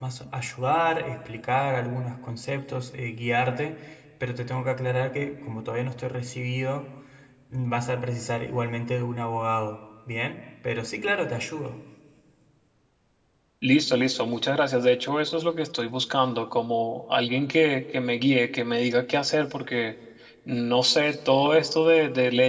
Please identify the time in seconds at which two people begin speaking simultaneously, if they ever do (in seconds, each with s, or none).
none